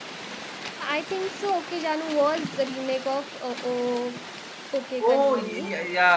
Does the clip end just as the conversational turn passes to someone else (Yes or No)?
Yes